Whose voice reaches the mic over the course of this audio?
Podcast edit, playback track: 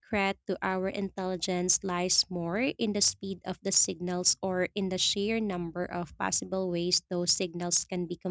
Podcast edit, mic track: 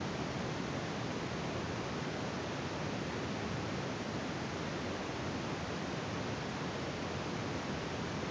neither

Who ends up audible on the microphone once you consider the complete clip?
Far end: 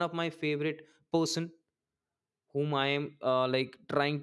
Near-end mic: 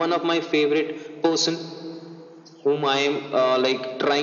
echo only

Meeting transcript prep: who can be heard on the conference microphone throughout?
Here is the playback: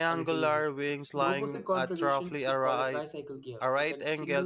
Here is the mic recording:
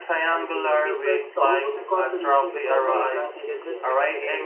both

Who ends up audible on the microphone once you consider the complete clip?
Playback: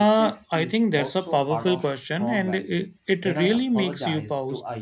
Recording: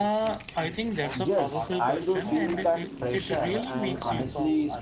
both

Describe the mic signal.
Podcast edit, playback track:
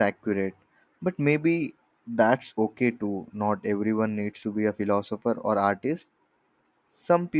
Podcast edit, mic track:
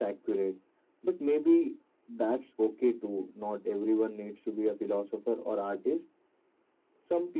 echo only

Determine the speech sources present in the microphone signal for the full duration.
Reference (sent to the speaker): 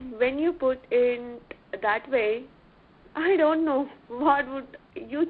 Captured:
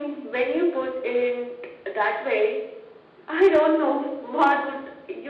echo only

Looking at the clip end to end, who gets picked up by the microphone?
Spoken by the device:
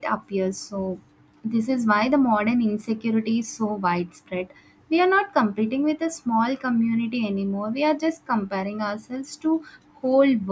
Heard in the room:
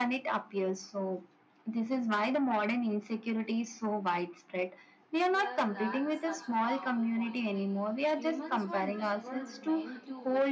both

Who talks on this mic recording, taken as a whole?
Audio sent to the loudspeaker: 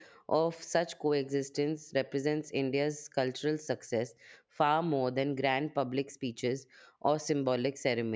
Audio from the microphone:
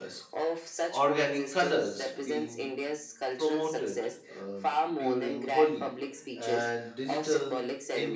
both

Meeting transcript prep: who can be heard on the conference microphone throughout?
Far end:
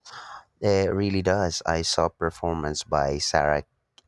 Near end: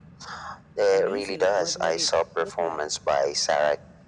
both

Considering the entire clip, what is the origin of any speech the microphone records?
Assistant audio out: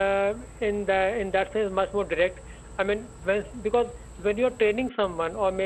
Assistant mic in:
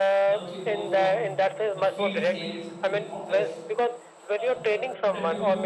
both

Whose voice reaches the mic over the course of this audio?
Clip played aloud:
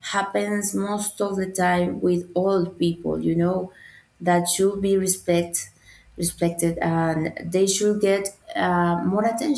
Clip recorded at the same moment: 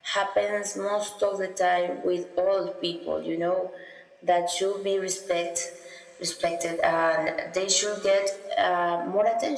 echo only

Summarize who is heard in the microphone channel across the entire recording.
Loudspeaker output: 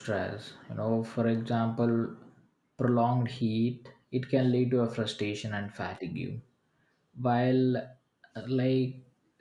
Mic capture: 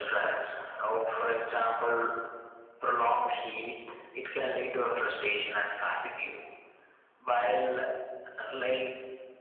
echo only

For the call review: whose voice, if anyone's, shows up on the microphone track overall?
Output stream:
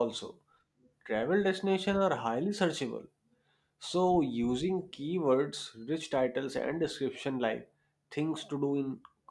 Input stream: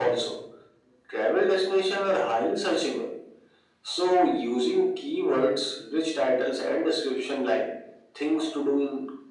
echo only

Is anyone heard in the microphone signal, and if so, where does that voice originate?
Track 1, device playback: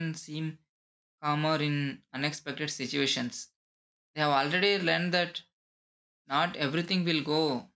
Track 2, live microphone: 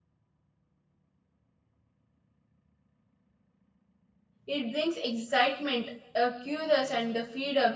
user only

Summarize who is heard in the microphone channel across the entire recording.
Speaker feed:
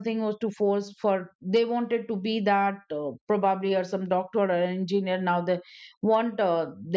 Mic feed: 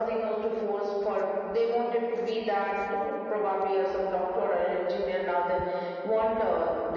echo only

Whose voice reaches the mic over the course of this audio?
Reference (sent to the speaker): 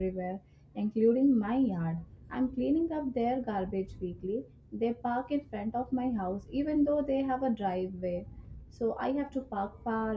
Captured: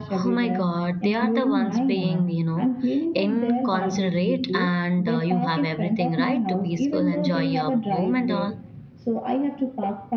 both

